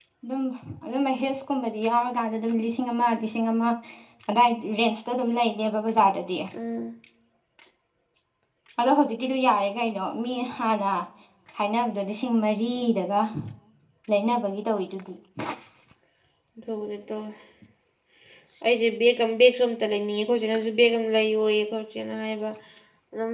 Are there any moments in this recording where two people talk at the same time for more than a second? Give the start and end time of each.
none

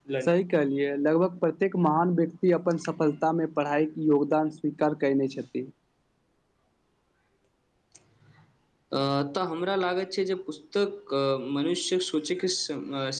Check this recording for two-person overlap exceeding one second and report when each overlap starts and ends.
none

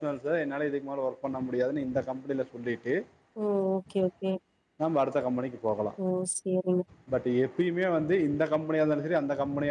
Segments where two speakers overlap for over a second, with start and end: none

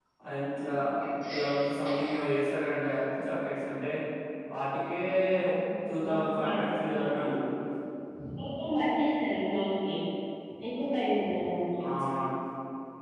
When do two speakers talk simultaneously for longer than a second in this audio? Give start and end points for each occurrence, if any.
5.9-7.2

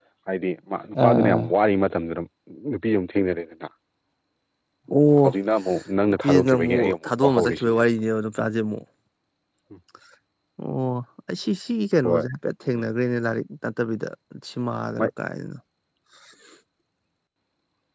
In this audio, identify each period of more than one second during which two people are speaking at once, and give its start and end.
6.2-7.6

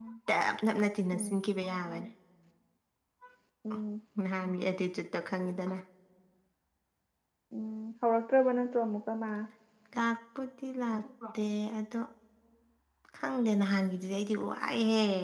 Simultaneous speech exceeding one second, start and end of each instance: none

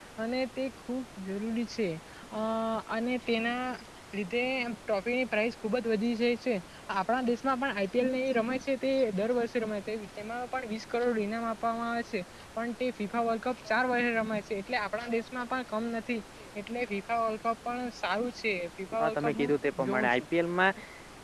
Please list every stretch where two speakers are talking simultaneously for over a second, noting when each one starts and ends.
19.0-20.2

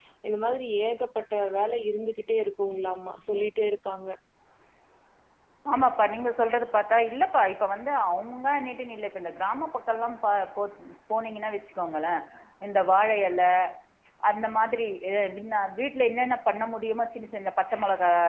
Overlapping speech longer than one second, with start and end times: none

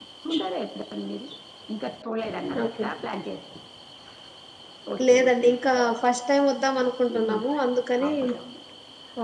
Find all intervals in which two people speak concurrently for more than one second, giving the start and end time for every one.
none

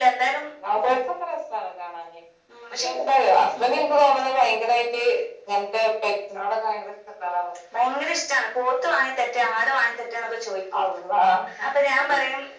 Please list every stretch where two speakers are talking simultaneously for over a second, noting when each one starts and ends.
none

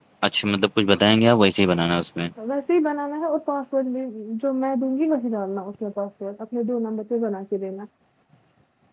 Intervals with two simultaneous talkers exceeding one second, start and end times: none

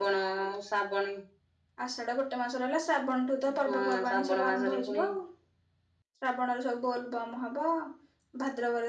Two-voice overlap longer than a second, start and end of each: 3.6-5.0

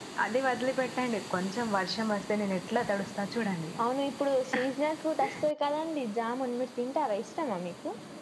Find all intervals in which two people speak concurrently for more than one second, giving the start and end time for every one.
none

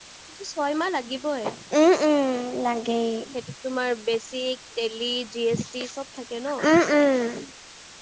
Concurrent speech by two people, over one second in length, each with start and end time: none

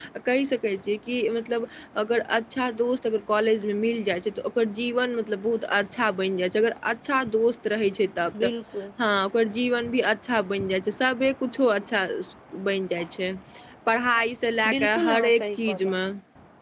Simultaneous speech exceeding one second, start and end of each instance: 14.7-16.0

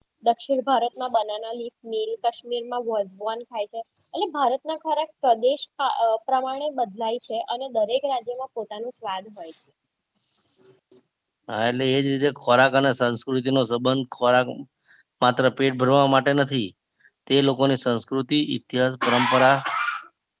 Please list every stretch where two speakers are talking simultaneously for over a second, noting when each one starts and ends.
none

